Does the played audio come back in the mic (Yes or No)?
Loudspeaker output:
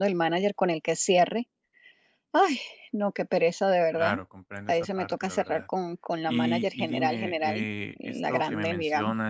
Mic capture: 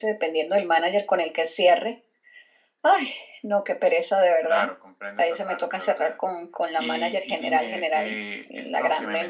Yes